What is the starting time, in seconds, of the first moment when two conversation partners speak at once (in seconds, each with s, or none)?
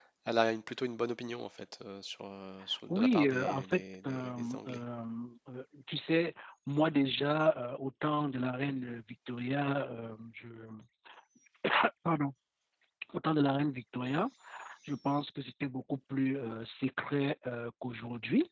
2.9 s